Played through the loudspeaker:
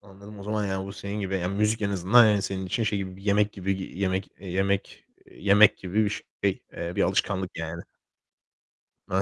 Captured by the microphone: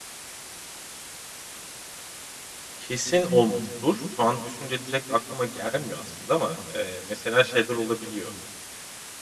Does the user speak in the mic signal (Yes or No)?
Yes